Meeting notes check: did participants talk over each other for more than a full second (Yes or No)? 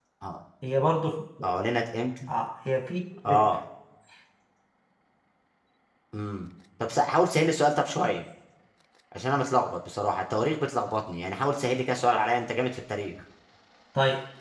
No